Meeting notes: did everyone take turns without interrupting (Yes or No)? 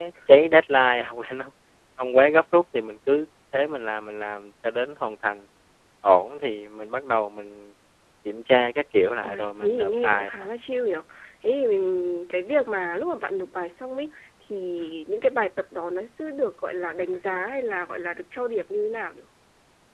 No